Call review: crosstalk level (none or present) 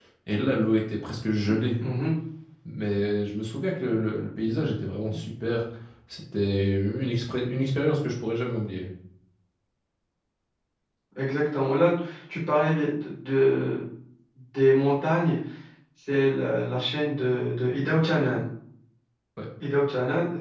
none